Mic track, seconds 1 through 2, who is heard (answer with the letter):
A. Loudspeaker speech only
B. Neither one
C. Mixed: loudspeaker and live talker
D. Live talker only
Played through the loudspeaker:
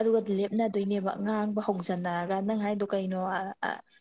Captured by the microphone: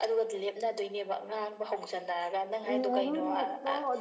A